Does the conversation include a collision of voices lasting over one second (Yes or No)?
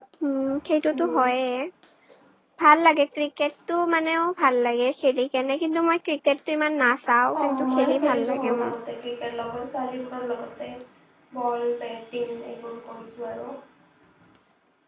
Yes